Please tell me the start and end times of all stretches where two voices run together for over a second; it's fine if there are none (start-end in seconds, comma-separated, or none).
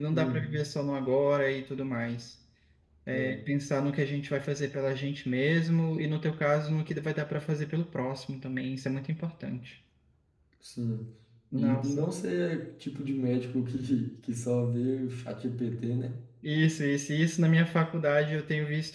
none